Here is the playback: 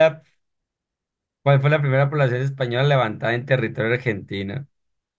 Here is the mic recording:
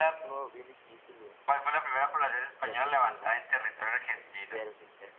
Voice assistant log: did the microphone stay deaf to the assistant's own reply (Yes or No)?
No